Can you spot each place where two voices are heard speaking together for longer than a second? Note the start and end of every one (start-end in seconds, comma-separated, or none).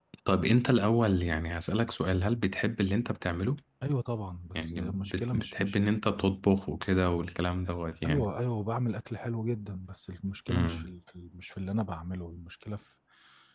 4.5-5.8